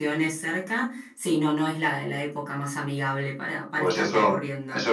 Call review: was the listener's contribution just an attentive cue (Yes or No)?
No